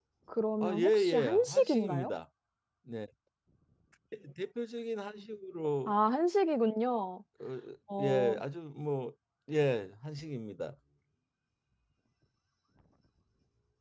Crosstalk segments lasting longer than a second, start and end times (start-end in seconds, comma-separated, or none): 0.6-2.1